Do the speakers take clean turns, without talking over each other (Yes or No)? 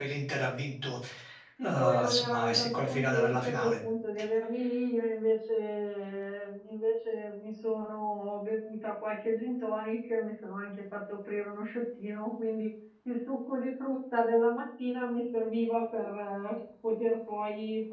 No